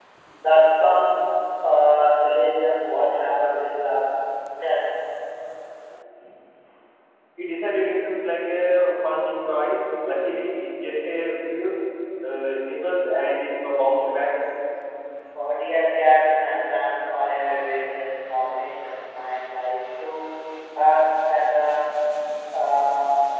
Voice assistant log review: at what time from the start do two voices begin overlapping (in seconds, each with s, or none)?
none